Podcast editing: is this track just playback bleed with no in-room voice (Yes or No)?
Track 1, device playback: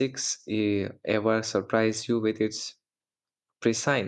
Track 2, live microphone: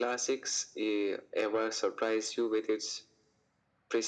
Yes